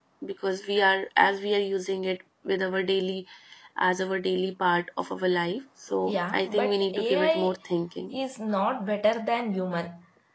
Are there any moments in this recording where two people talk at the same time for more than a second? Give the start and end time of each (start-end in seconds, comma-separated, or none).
6.0-7.5